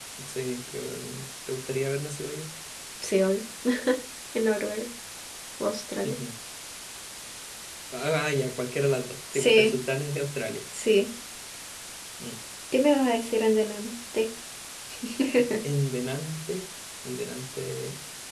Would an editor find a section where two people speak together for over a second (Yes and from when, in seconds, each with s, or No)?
No